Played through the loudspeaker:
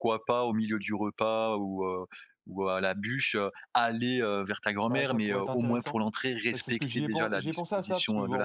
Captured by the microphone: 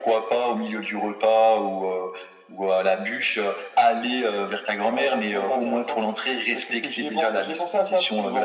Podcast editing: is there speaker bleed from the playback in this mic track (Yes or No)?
Yes